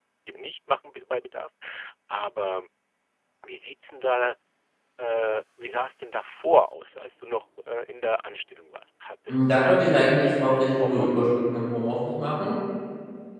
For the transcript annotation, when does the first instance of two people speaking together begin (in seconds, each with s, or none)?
9.3 s